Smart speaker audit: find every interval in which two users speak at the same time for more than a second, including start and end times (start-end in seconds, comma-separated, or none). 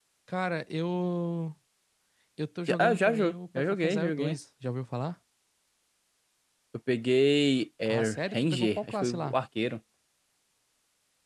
2.7-4.4, 7.9-9.4